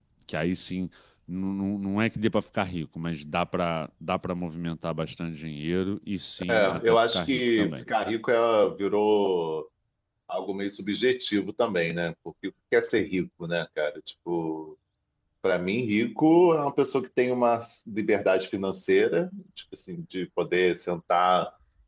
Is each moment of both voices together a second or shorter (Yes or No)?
No